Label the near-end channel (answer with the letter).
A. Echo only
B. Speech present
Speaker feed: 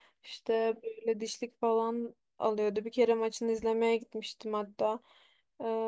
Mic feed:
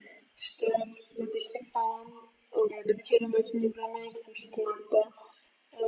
A